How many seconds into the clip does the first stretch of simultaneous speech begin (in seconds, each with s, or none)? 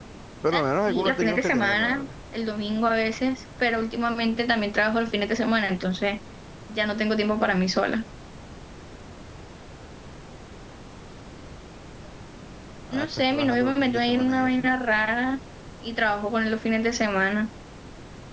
0.5 s